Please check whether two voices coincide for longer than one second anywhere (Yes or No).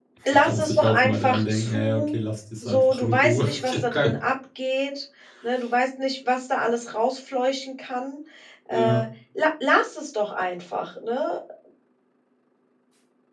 Yes